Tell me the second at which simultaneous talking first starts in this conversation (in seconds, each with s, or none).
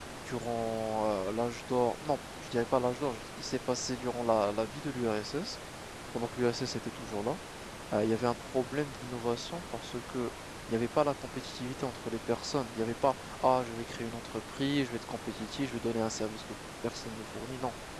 none